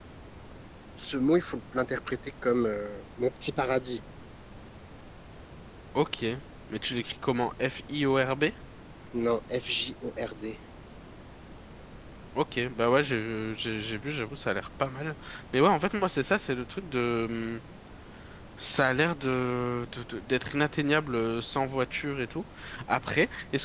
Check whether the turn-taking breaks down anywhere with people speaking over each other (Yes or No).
No